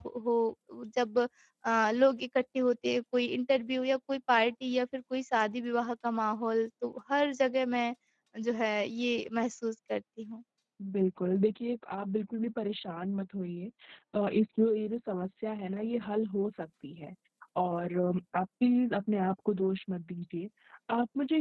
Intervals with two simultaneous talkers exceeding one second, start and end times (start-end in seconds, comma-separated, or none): none